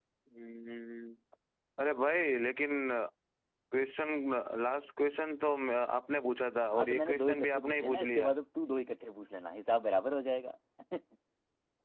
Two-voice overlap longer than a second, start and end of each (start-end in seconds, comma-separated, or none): 6.7-8.3